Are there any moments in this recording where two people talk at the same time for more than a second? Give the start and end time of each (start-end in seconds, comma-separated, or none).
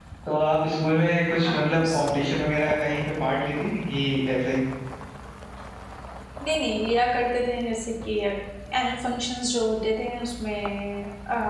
none